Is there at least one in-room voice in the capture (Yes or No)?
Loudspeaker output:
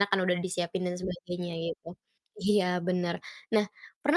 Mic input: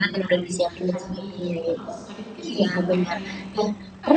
Yes